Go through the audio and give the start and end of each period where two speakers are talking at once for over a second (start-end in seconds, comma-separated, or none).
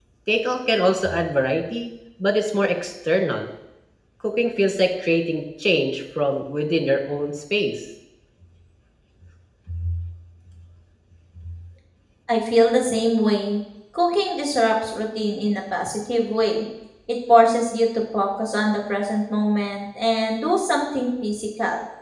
none